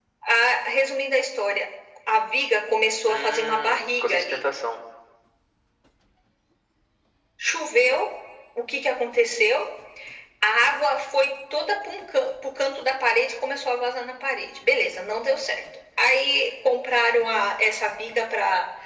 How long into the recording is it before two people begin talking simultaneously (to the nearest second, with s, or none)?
3 s